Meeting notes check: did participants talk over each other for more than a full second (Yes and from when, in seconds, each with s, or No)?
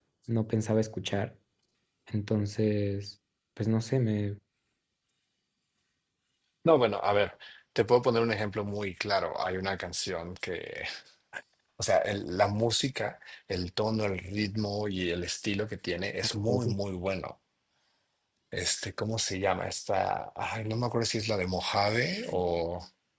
No